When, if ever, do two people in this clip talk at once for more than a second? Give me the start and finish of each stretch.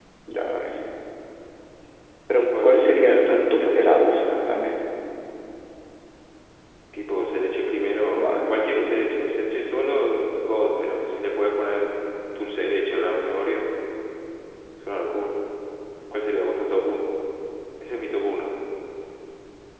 2.6-4.6

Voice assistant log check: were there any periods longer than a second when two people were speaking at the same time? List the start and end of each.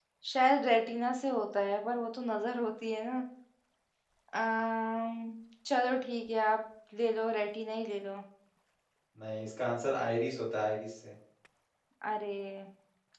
none

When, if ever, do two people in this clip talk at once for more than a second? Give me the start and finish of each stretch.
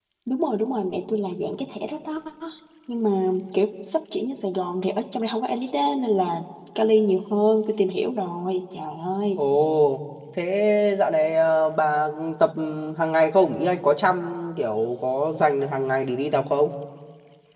none

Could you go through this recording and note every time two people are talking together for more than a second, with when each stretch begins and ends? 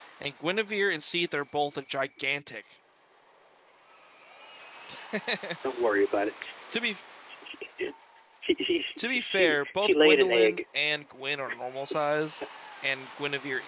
9.0-10.6

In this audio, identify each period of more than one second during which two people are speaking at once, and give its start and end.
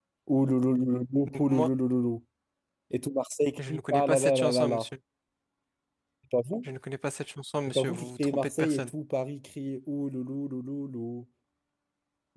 3.6-4.8, 7.7-8.9

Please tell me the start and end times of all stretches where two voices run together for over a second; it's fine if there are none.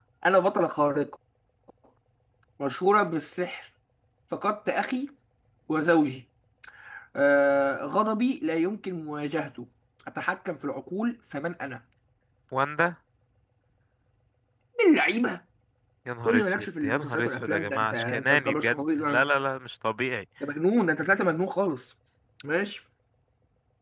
16.2-19.2

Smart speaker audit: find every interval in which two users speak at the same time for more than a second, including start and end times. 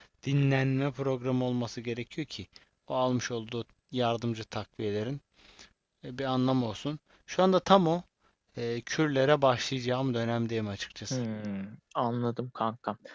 none

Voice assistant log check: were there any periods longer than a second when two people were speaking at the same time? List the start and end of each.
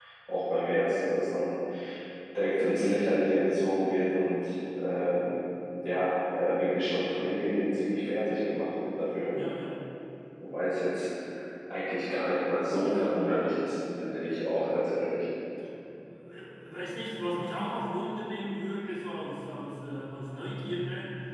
none

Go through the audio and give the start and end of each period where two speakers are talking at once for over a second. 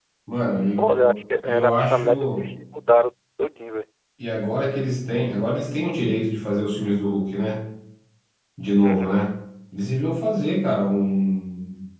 0.8-2.6

